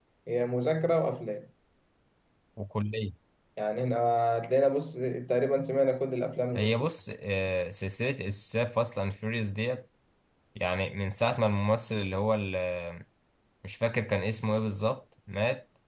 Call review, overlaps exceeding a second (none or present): none